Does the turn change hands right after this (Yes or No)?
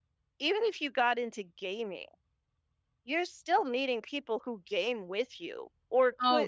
Yes